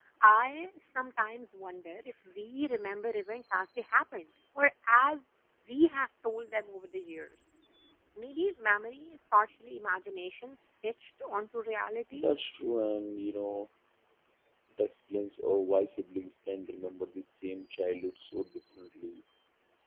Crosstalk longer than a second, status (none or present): none